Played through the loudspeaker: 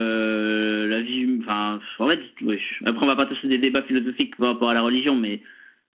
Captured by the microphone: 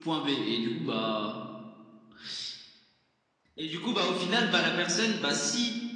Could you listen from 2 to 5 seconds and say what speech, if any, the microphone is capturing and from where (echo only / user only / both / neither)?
user only